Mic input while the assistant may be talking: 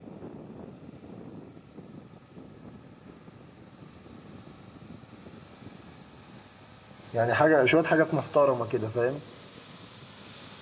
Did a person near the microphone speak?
Yes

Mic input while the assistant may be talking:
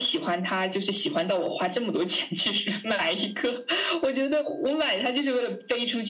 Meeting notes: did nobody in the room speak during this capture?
Yes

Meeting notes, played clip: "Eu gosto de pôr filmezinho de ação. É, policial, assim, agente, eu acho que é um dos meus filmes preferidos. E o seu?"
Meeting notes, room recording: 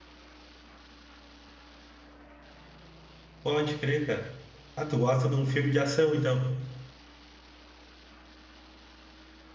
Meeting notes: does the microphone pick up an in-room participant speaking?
Yes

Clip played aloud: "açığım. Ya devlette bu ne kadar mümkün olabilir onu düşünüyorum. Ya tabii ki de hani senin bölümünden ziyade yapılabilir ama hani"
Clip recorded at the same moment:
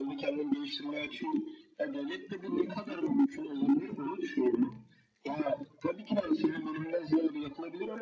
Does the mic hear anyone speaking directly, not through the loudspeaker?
No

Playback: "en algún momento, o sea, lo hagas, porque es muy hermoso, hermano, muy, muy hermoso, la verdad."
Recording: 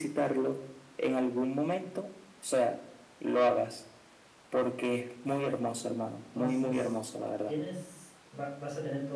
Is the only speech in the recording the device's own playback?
No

